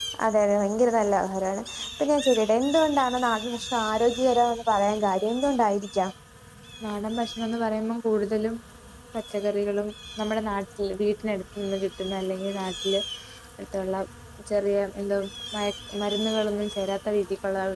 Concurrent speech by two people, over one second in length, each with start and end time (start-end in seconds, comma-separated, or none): none